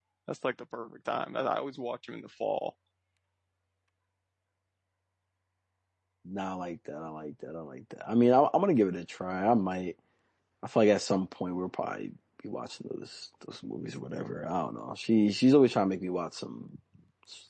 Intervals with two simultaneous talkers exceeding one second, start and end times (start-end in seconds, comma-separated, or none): none